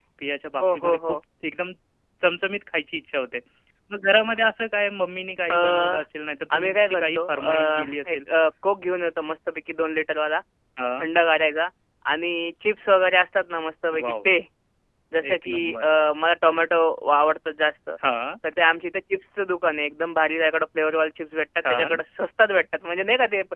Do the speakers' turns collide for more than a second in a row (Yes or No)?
Yes